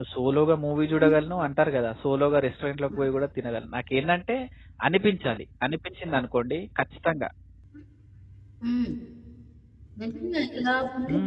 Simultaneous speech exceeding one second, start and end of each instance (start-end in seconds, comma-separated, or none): none